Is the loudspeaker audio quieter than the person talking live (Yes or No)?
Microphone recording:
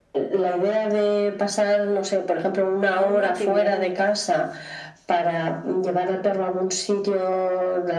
No